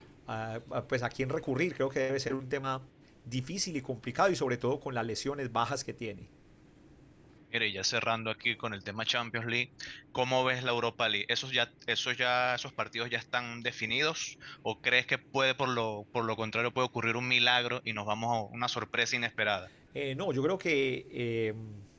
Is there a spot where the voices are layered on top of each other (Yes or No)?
No